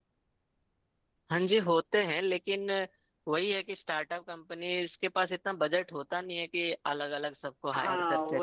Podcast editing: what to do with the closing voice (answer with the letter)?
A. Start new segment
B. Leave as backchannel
A